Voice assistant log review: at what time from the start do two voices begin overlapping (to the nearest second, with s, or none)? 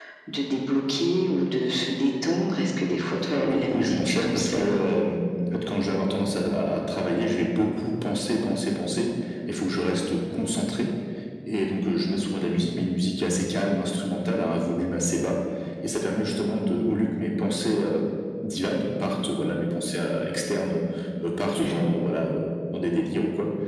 3 s